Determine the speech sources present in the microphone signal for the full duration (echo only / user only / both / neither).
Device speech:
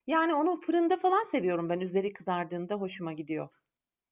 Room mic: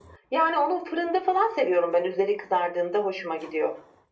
echo only